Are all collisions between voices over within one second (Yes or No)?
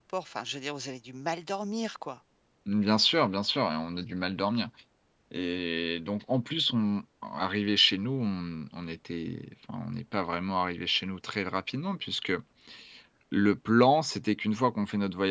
Yes